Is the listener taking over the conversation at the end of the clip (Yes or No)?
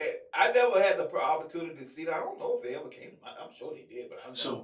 Yes